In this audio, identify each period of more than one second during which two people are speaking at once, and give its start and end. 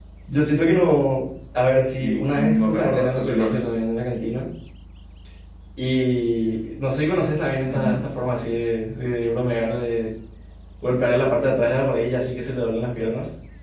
2.0-3.6

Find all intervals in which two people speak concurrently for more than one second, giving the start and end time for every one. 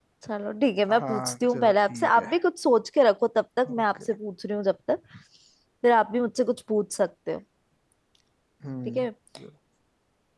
0.9-2.3

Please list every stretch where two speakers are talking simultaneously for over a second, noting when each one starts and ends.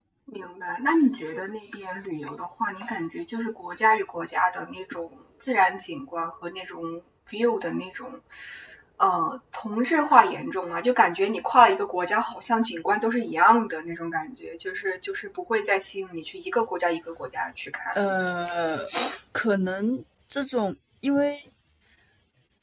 none

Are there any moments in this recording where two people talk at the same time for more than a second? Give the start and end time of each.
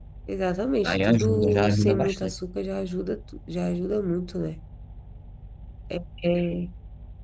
0.8-2.3

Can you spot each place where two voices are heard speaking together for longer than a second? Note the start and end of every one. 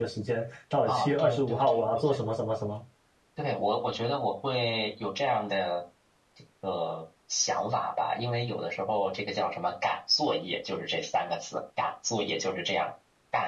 0.8-2.2

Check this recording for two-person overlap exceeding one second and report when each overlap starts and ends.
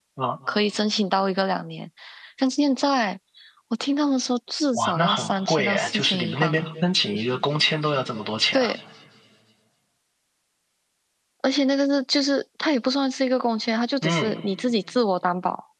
4.7-6.7

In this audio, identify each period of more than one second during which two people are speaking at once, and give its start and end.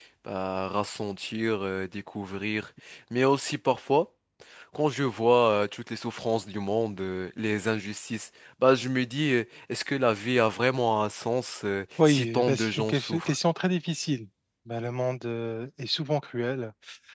12.1-13.3

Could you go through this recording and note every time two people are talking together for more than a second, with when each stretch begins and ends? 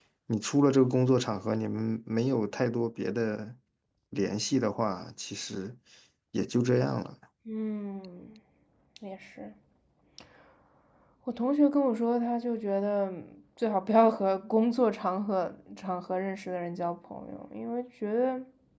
none

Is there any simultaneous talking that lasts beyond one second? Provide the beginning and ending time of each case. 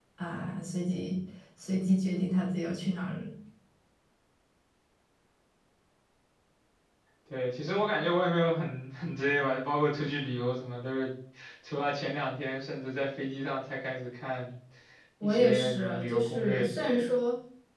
15.2-17.0

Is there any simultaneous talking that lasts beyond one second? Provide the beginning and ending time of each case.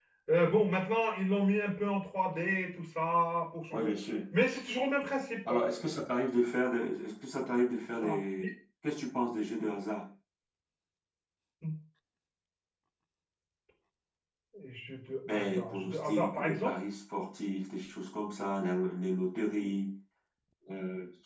15.3-16.8

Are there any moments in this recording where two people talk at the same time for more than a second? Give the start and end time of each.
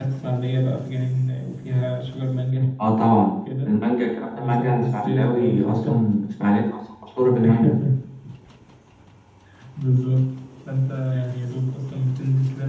4.4-5.9

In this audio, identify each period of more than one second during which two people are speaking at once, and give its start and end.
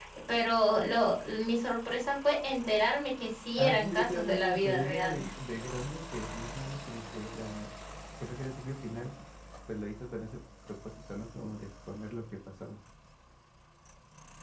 3.6-5.3

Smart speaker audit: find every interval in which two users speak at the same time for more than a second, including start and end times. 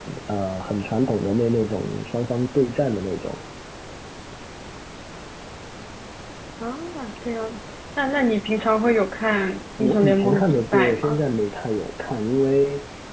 9.8-11.2

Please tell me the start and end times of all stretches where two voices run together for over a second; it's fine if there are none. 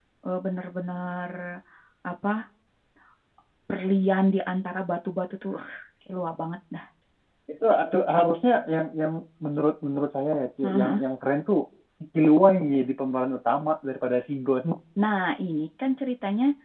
none

